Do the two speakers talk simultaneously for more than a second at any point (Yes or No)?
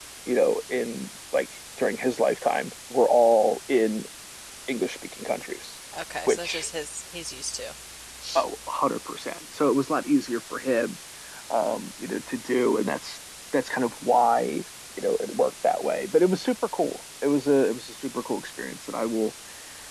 No